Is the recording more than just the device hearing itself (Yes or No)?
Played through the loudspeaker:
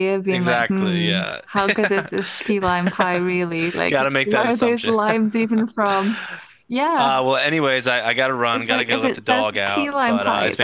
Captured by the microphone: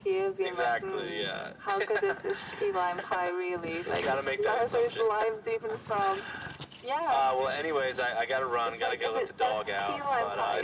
No